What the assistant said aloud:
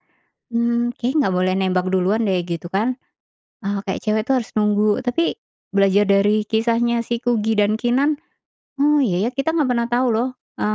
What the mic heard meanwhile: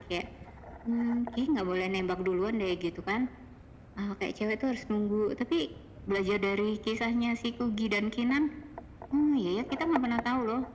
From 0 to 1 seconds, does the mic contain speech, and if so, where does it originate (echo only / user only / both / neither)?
echo only